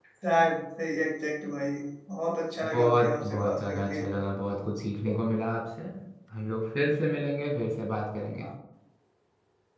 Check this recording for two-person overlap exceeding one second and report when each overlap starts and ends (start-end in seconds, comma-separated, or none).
2.7-4.0